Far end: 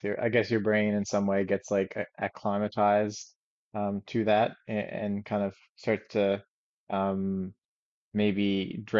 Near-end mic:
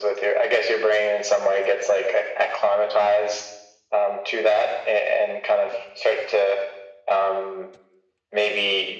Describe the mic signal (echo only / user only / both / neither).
echo only